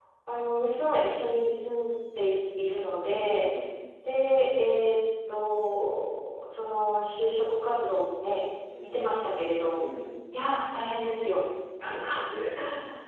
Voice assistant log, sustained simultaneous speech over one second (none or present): none